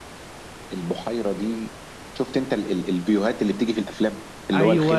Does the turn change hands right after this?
No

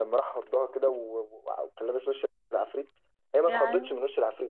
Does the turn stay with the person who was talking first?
Yes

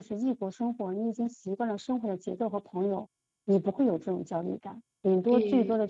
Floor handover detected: No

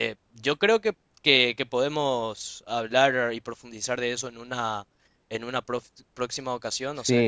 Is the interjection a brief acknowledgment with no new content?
No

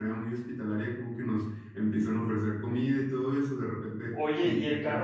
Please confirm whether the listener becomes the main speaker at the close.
Yes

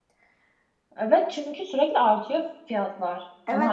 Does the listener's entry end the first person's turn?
Yes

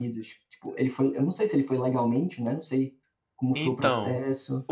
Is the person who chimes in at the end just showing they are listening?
No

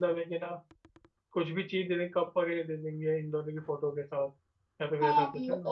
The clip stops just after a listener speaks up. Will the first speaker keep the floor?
No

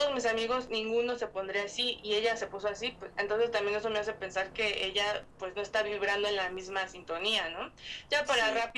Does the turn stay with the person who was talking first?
Yes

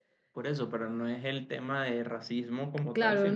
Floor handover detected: Yes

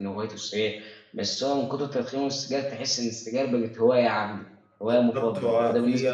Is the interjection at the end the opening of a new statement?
Yes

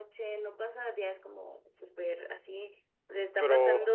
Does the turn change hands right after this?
No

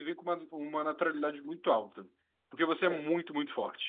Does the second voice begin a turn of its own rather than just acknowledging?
No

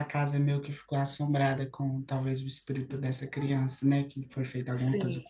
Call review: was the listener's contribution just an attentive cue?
No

